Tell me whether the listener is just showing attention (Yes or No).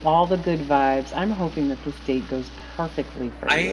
No